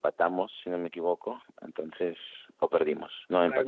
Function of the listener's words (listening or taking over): taking over